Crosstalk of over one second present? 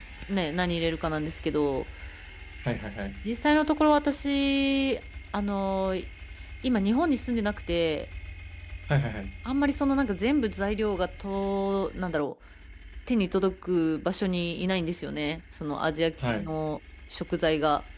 No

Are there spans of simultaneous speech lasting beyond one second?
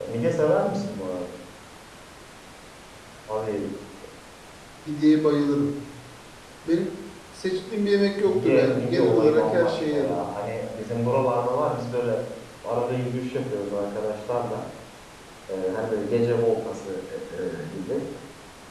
Yes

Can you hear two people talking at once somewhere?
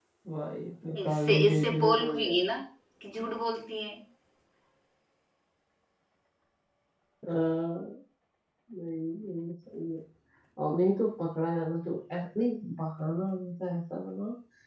Yes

